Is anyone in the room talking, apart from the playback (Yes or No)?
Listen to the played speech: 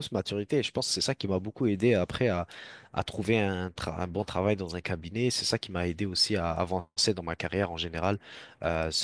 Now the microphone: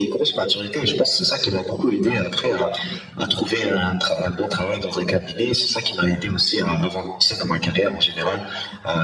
No